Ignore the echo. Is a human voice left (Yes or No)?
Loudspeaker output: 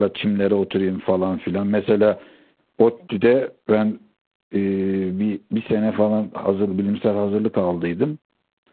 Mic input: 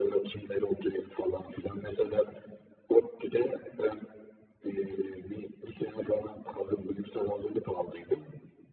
No